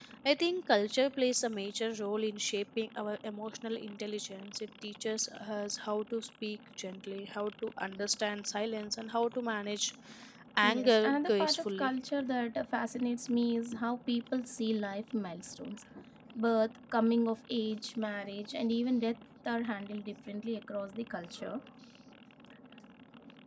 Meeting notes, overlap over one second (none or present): present